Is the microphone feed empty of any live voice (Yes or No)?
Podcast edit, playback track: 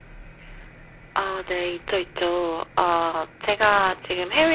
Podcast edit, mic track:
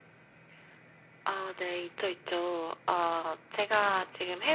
Yes